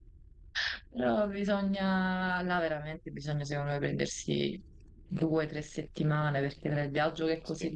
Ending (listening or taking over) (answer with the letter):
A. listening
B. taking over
A